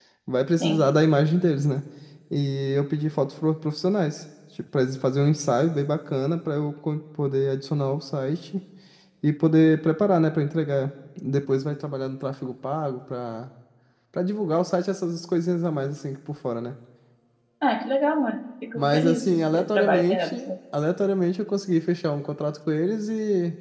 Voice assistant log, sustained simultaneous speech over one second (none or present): present